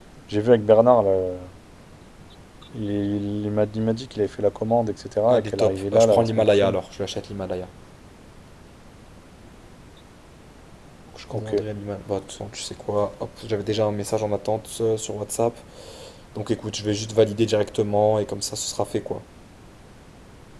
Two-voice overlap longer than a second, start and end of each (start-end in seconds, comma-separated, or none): 5.3-6.8